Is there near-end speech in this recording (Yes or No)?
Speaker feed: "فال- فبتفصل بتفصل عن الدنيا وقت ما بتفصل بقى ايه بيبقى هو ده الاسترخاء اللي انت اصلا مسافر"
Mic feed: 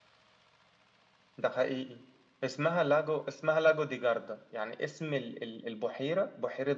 Yes